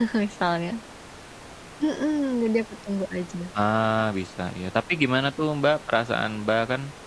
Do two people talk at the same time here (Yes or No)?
No